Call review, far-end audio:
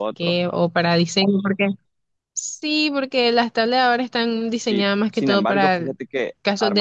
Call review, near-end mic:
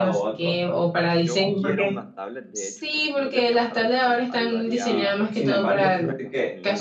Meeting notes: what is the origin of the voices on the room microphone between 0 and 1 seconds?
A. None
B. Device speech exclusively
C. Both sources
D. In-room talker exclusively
B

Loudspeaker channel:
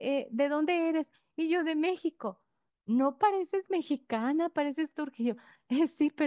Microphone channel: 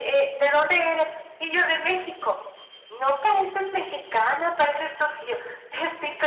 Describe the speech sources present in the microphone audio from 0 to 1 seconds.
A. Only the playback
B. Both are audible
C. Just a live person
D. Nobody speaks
A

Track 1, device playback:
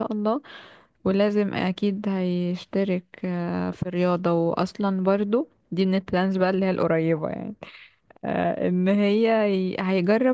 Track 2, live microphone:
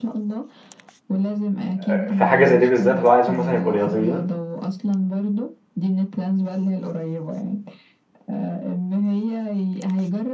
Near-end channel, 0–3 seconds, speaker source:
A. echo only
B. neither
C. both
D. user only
C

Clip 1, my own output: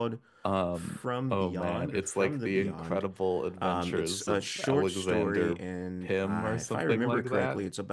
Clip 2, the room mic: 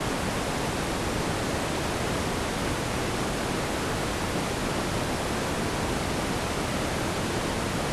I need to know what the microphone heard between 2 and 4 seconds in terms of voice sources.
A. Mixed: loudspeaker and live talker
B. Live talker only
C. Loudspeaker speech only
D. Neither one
D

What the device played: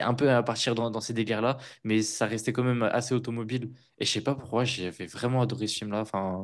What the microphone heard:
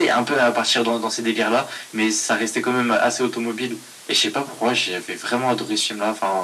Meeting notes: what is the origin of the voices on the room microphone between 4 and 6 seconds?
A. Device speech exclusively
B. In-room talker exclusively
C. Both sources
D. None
A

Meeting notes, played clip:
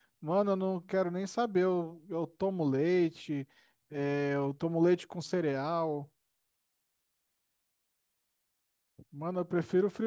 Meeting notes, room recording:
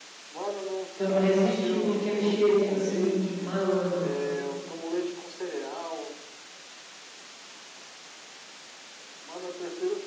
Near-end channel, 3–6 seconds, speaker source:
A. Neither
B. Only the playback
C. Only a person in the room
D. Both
D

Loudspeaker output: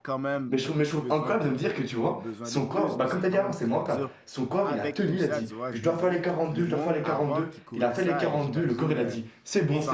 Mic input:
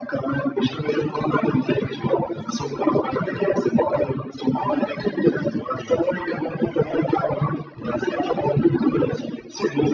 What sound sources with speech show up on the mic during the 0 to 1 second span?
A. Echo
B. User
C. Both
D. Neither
A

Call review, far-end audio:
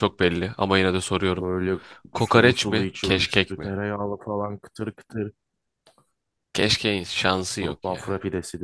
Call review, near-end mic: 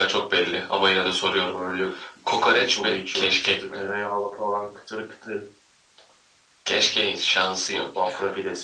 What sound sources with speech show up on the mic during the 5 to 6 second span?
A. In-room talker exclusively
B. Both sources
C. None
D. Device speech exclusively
D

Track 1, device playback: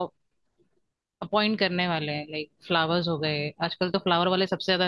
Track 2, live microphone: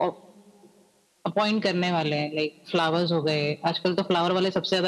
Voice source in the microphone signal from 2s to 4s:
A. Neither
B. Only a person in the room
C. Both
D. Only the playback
D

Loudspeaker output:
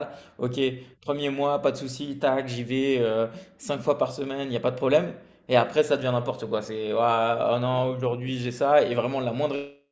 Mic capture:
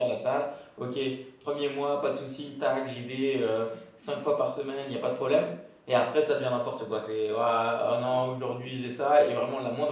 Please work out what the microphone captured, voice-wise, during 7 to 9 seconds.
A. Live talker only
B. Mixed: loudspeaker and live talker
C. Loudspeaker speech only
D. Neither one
C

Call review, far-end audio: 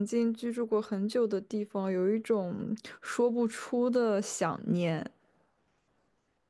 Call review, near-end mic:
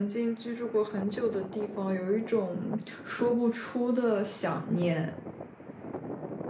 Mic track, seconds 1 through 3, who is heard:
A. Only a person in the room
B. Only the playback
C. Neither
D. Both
B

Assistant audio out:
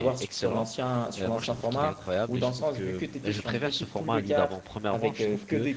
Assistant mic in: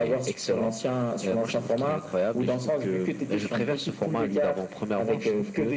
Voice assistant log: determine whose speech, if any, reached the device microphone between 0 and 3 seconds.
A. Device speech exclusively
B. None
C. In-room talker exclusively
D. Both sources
A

